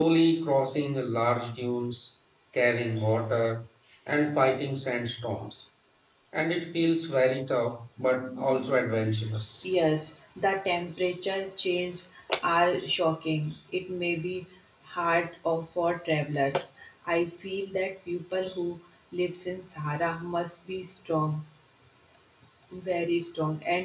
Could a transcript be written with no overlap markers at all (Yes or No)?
Yes